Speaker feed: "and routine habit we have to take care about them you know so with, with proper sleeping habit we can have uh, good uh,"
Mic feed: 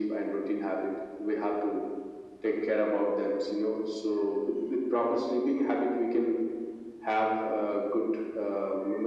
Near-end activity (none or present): none